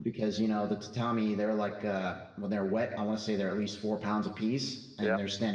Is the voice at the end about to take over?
No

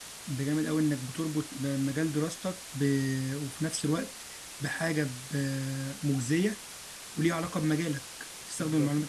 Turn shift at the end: No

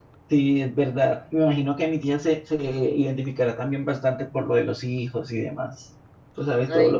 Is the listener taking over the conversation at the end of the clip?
No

